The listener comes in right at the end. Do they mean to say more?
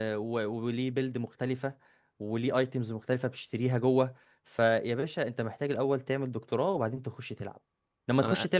No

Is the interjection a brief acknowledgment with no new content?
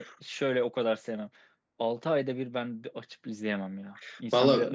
No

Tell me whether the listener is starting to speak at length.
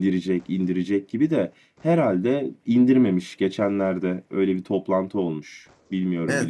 Yes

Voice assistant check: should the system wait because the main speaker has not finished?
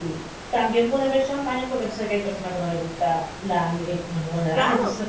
Yes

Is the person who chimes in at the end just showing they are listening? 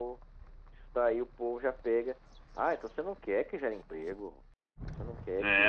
No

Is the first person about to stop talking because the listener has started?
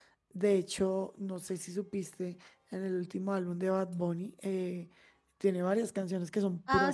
Yes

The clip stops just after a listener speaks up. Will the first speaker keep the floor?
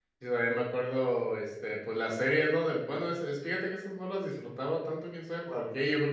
Yes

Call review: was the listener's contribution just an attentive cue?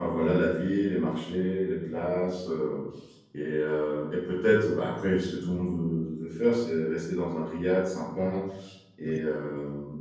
Yes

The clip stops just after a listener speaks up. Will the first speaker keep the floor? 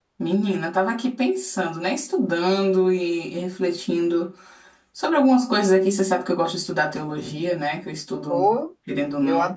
No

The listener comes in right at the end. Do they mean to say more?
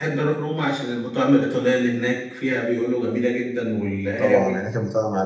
Yes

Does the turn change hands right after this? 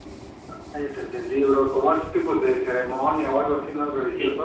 Yes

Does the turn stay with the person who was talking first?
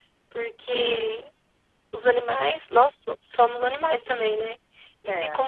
Yes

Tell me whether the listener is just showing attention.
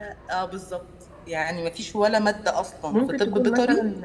No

